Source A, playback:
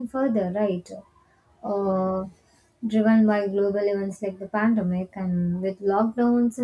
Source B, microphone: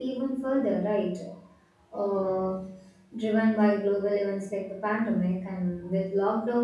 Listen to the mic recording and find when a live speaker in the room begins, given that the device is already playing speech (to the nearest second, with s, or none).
none